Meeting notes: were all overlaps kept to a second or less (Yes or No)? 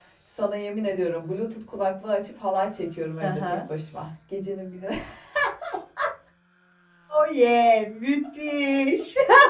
Yes